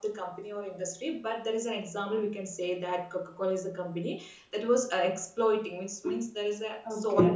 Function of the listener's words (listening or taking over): taking over